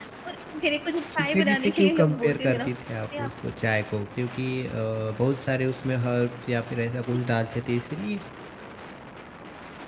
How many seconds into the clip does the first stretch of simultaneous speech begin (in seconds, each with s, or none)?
1.1 s